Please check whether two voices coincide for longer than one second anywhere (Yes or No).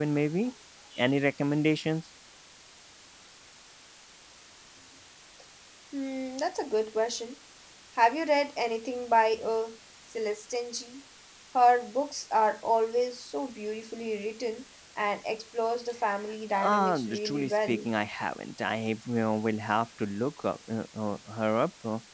Yes